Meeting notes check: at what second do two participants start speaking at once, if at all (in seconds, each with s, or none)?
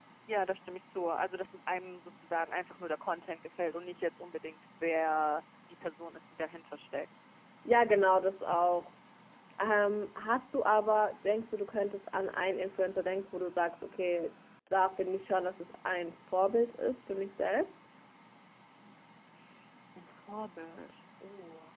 none